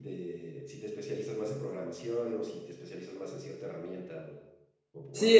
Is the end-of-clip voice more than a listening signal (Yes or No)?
Yes